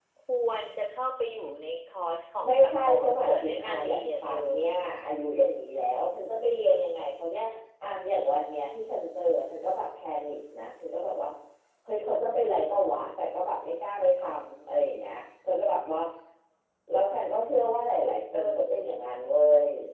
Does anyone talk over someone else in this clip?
Yes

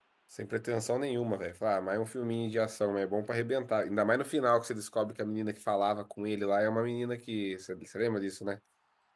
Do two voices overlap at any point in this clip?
No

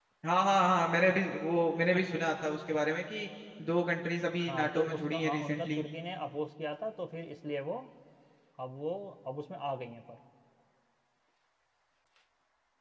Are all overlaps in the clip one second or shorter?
No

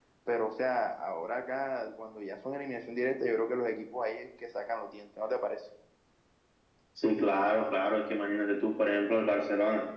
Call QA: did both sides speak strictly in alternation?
Yes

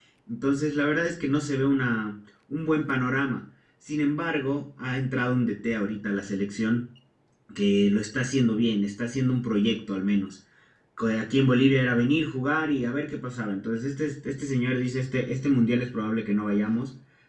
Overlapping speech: No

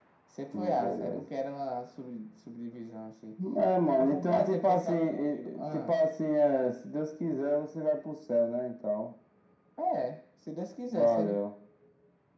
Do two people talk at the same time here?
Yes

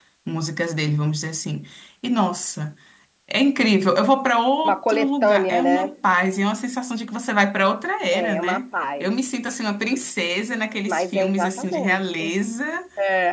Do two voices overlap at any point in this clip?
Yes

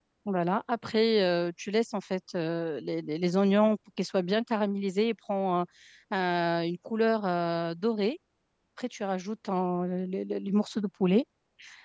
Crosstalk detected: No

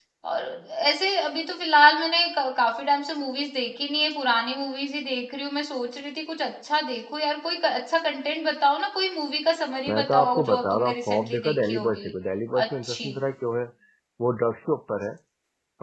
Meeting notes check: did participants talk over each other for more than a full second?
Yes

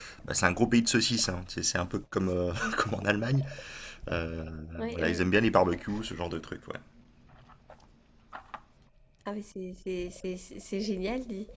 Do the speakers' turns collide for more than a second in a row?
No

